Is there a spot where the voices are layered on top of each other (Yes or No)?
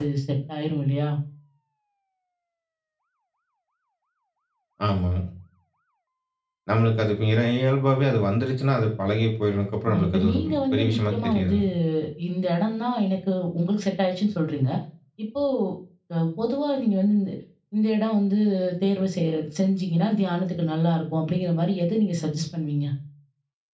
Yes